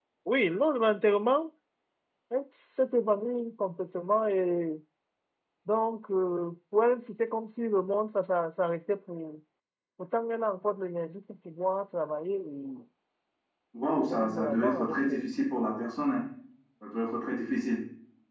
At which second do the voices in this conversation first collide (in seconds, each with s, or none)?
14.0 s